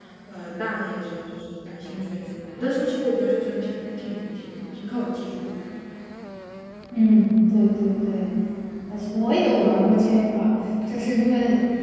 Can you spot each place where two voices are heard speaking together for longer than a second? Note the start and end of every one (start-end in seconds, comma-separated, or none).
none